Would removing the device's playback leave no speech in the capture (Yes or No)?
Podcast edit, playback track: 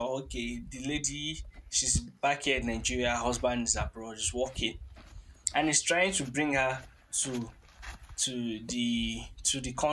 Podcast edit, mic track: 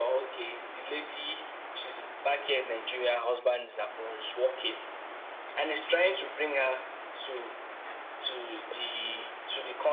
Yes